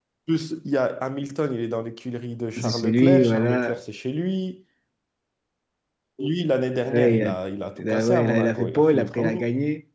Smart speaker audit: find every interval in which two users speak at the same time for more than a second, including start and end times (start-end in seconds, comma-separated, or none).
2.6-3.8, 7.8-9.4